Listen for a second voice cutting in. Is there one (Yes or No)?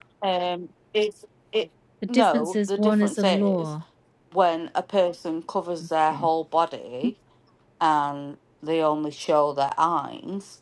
Yes